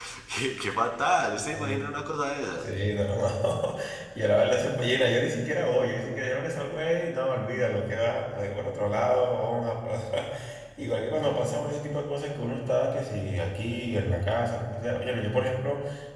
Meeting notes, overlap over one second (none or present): none